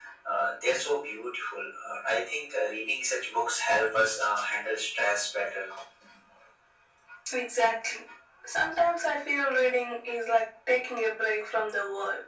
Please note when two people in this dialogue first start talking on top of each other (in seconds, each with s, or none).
none